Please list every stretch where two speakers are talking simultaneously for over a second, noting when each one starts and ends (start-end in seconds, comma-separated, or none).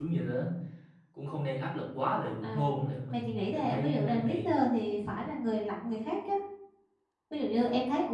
3.1-4.5